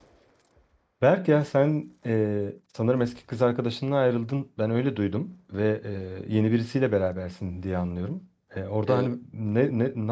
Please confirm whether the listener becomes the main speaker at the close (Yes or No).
No